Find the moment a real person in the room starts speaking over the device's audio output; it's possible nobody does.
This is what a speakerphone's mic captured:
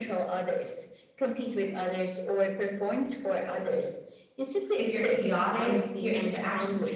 4.8 s

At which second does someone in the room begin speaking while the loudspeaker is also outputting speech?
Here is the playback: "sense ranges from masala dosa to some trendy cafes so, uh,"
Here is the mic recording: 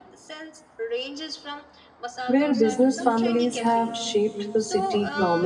2.3 s

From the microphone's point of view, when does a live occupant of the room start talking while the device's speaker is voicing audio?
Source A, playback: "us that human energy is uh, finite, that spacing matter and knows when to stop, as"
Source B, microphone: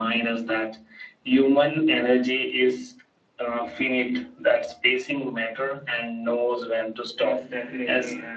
7.2 s

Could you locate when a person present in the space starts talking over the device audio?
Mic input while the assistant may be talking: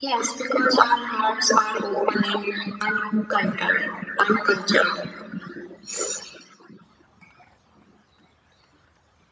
none

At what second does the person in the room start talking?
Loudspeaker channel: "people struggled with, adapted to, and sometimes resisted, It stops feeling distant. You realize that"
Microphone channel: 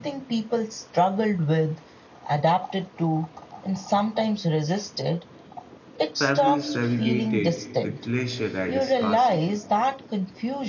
6.2 s

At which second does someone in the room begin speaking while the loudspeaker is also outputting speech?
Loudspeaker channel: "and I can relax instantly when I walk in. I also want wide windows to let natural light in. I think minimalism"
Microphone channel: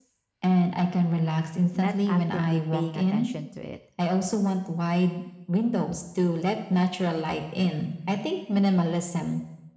1.7 s

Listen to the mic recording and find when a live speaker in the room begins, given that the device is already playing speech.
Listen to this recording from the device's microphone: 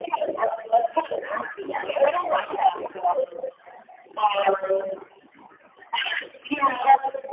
none

